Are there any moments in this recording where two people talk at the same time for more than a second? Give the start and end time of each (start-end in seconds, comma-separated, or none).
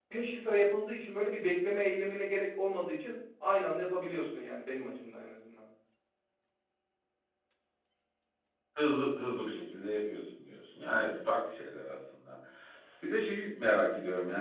none